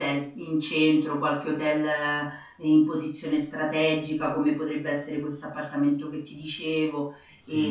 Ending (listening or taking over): taking over